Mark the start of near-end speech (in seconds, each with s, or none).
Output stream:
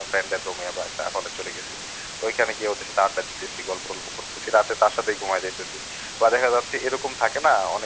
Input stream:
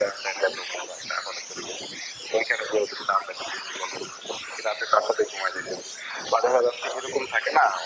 none